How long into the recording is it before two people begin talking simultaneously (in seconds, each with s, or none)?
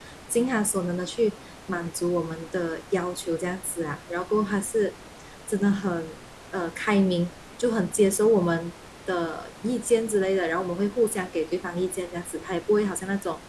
none